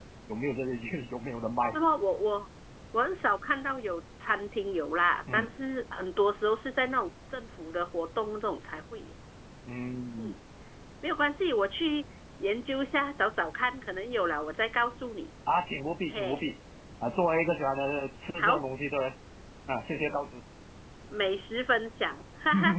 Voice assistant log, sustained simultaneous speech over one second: none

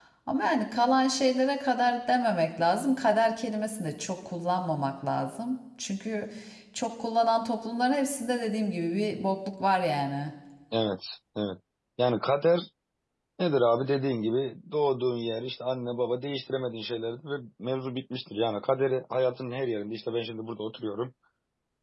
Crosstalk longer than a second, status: none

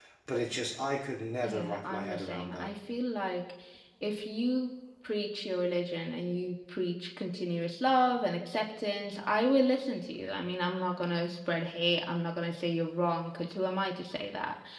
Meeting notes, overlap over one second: present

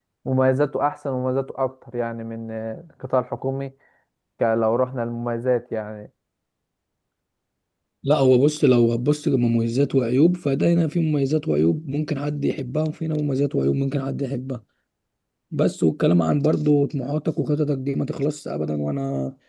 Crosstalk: none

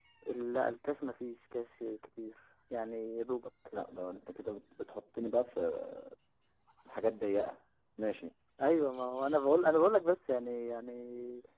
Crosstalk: none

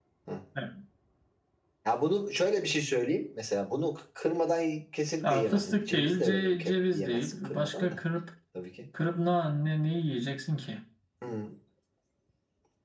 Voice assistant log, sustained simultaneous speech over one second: present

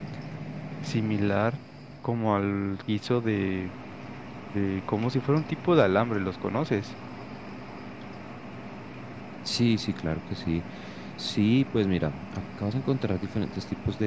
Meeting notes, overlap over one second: none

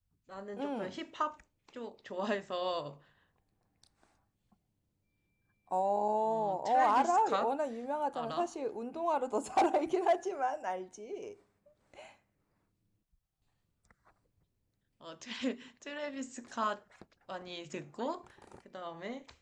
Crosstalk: present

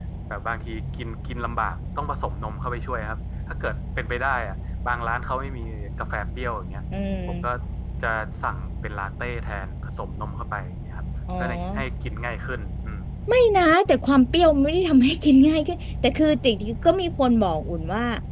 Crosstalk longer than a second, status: none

